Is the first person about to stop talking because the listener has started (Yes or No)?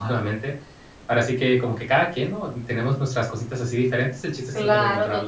Yes